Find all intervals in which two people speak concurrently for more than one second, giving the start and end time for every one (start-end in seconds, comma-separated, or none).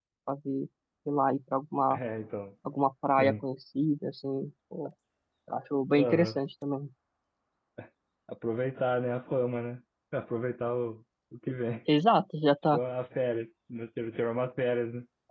none